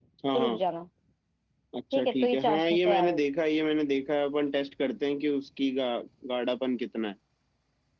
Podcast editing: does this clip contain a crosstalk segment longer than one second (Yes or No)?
Yes